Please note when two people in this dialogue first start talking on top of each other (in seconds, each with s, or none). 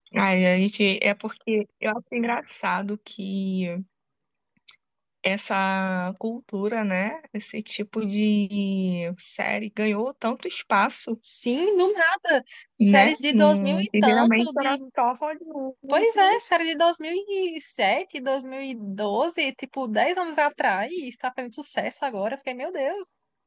12.8 s